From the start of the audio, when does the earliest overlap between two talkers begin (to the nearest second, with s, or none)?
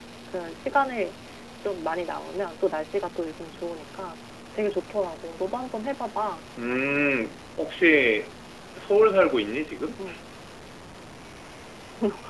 none